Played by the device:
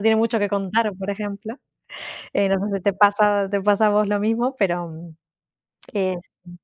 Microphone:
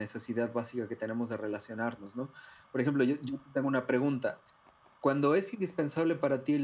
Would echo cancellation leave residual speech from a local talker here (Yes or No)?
Yes